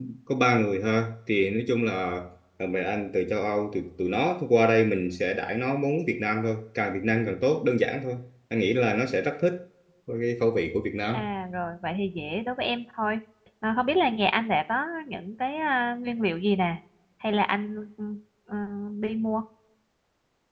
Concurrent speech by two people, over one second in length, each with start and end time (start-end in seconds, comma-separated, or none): none